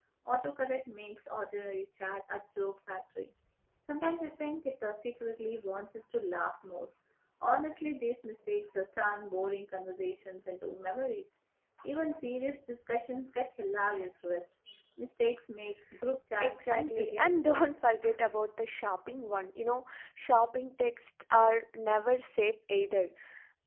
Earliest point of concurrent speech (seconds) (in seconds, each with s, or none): 16.4 s